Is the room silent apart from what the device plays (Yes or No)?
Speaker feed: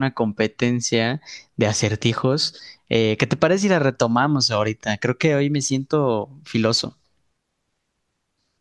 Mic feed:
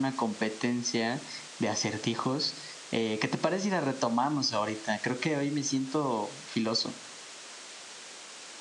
Yes